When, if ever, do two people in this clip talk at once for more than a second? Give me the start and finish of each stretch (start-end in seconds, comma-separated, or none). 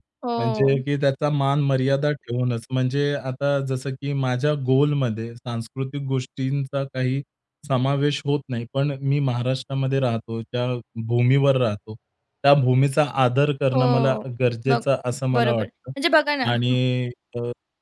none